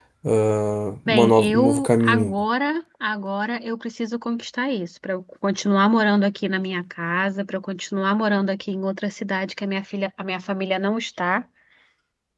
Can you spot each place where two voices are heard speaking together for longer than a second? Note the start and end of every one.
1.1-2.3

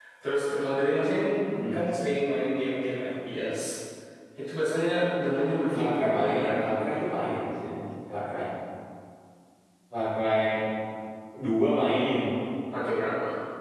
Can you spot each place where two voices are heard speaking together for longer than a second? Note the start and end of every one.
5.7-7.2

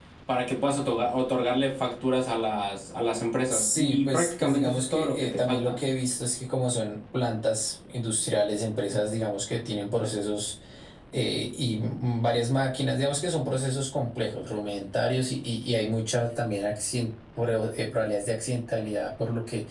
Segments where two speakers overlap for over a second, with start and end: 3.5-5.8

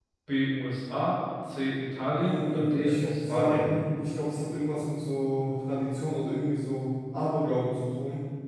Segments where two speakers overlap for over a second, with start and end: 2.2-3.7

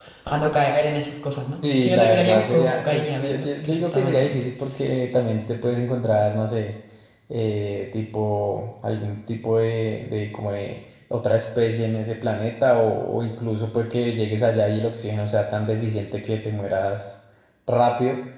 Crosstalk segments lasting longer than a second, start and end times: 1.7-4.5

